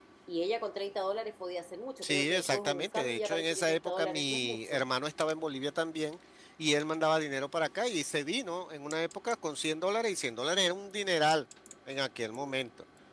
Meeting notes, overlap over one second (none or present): present